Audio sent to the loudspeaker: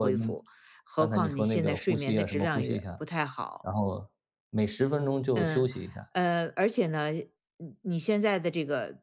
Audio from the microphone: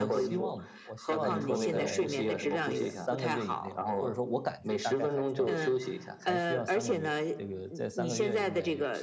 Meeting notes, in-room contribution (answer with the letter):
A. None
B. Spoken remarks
B